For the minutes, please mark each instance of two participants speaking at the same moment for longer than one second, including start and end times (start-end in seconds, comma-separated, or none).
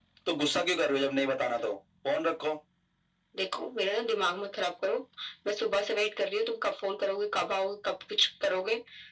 none